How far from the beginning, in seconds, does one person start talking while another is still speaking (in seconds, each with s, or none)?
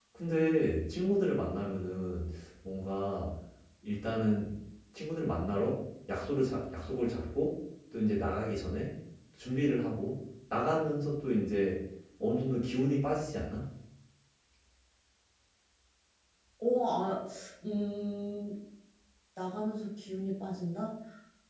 none